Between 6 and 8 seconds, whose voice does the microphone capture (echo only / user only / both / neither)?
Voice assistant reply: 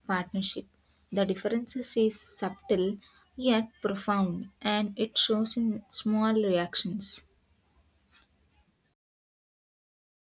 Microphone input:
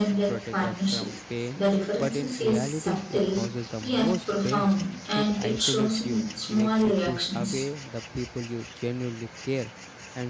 both